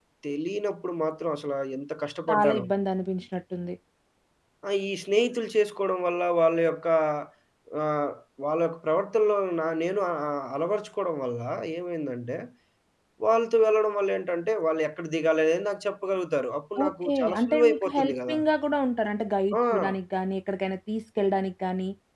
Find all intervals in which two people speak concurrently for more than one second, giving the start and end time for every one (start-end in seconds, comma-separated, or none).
16.9-18.4